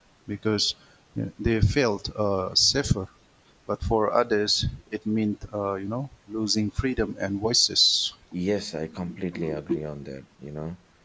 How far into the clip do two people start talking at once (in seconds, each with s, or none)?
none